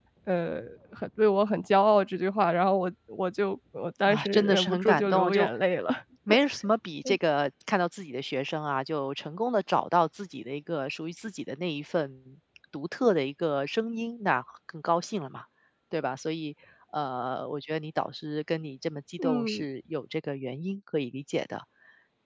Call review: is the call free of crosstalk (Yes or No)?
No